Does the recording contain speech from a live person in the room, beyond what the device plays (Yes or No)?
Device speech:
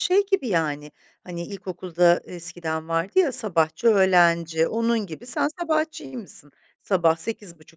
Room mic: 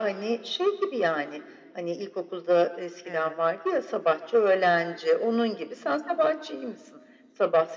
Yes